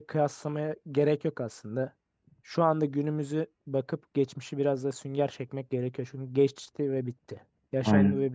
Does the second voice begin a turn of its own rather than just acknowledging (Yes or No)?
Yes